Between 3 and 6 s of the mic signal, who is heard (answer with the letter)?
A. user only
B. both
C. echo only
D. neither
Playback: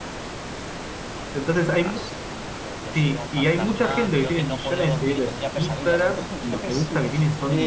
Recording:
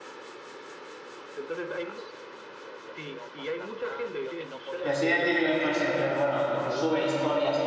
B